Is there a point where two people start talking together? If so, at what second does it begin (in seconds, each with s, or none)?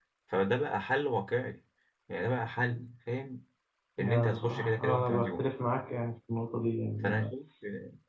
4.0 s